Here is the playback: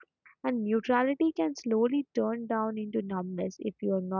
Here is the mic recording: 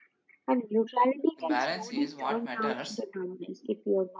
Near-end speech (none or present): present